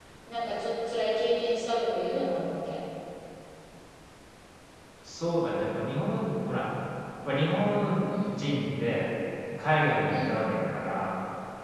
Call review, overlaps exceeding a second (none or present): none